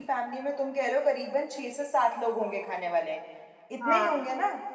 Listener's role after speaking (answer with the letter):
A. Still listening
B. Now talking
B